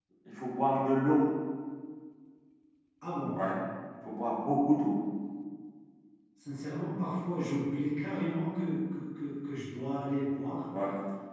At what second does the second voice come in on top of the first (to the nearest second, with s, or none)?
none